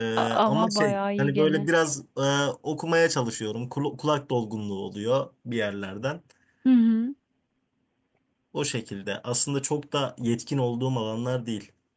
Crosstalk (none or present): present